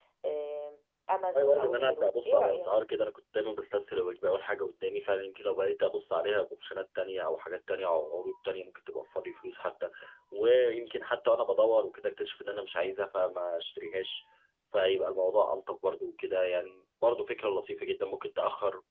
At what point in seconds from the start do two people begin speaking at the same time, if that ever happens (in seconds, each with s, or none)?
1.3 s